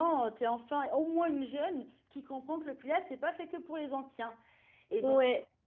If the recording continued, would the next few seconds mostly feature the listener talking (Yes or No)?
No